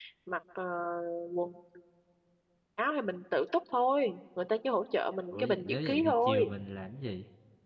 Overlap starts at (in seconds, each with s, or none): 5.3 s